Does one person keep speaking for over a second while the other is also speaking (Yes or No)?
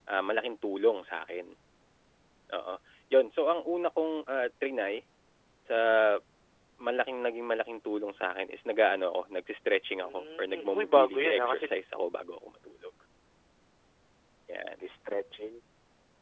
Yes